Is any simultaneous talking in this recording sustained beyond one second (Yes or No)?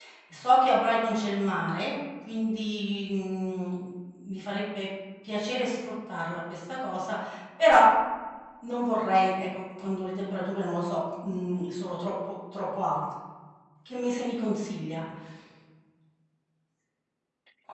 No